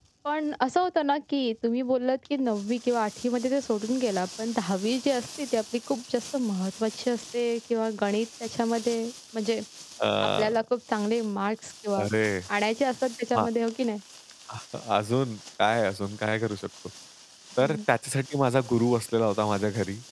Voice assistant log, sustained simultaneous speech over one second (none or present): none